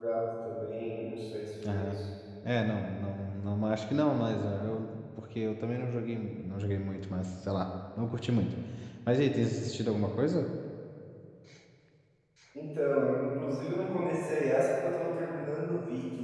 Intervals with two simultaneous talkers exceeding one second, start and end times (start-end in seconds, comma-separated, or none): none